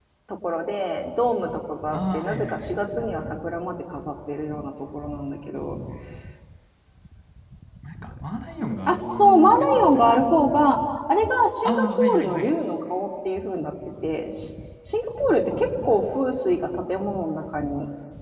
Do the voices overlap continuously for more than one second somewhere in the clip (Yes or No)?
Yes